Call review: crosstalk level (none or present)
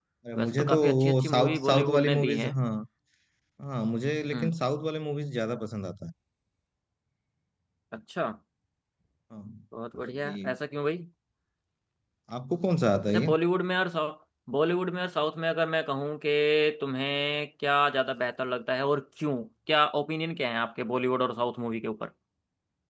present